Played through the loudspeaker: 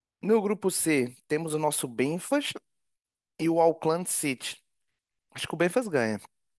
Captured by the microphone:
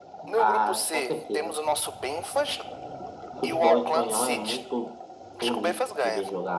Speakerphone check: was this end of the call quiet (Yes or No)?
No